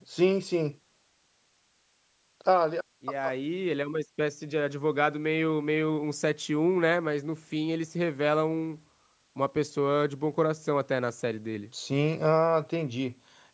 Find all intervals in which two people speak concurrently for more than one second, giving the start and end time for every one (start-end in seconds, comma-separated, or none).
none